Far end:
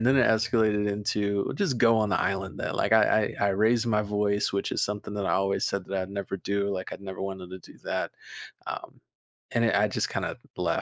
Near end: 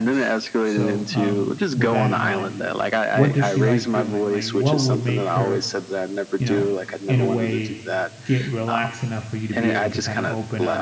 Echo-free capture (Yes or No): No